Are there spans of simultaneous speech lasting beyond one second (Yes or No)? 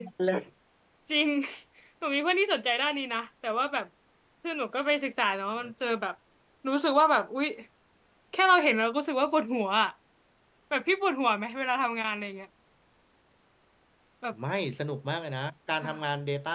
No